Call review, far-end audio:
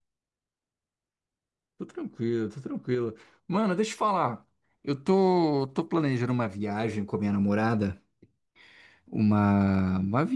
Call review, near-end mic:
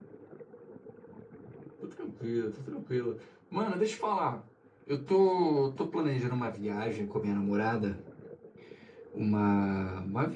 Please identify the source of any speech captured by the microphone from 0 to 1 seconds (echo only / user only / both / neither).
neither